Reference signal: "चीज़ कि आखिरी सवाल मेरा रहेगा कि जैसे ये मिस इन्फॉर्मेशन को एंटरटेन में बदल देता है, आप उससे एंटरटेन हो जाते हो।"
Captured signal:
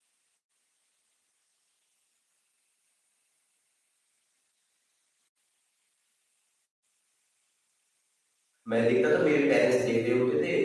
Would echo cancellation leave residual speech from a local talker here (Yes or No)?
Yes